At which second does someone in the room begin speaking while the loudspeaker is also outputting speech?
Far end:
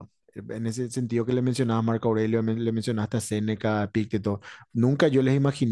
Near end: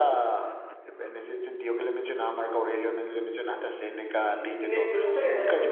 4.2 s

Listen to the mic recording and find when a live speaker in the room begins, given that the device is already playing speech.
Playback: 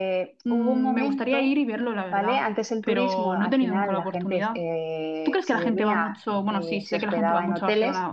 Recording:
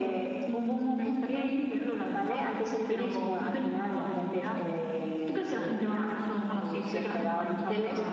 none

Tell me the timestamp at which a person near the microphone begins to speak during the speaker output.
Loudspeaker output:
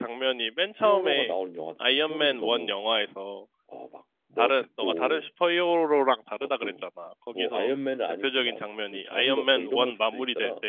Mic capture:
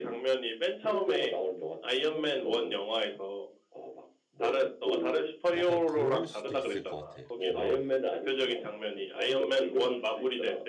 5.5 s

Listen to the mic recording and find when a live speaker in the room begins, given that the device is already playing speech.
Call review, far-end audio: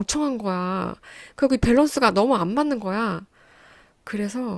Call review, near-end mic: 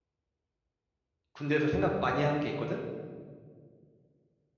1.3 s

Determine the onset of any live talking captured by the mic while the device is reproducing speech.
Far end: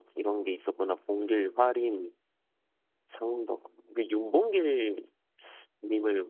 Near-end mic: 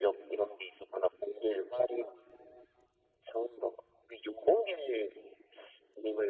none

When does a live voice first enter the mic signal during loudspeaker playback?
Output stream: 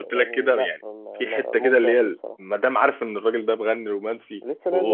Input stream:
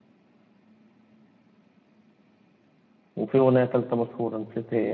3.1 s

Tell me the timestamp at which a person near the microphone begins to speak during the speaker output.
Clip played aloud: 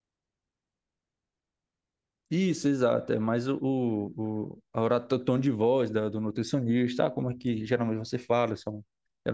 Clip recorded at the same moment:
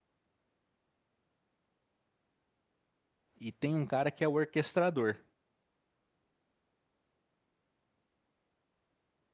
3.4 s

